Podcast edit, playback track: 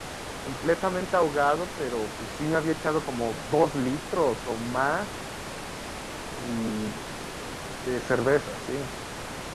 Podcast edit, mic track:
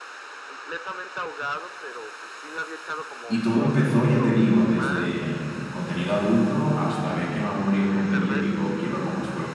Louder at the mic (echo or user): user